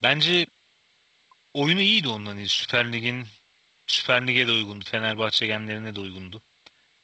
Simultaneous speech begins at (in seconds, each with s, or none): none